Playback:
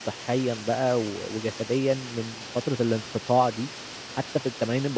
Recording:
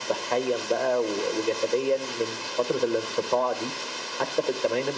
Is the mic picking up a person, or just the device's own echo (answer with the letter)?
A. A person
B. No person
B